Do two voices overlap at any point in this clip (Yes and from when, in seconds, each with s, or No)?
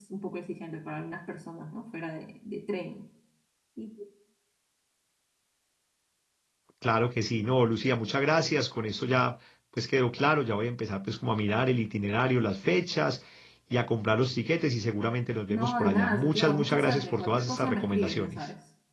Yes, from 15.5 s